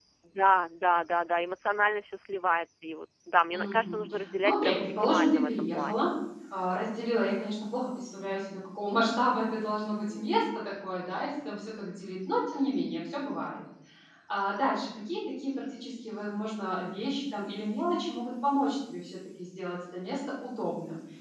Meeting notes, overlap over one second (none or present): present